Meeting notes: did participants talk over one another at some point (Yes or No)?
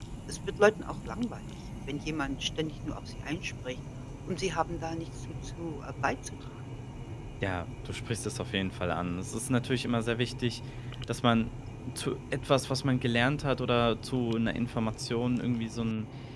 No